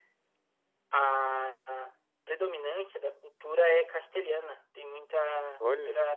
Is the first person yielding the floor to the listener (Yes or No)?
No